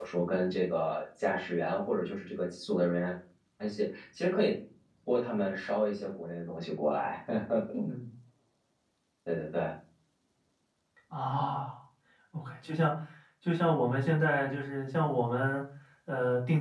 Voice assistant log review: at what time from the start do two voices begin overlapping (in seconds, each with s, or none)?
none